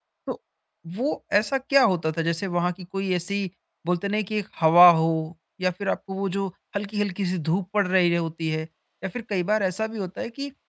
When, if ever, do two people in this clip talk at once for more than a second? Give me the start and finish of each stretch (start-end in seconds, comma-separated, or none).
none